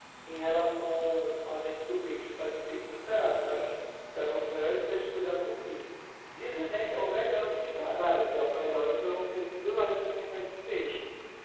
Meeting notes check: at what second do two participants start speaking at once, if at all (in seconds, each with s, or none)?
none